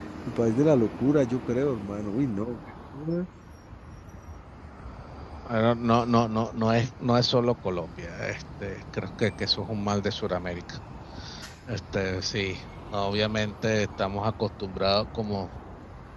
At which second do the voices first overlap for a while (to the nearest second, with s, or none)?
none